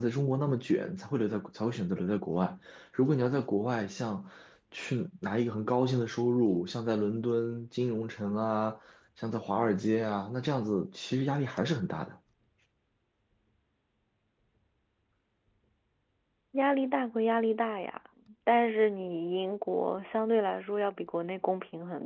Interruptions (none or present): none